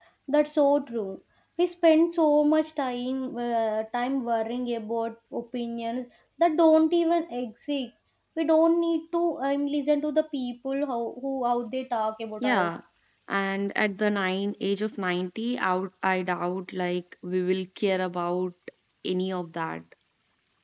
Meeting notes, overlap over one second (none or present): none